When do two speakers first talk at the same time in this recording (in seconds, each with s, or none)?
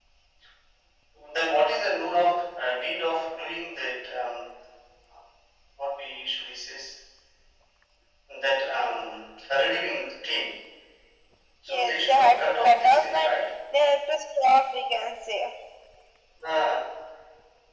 11.7 s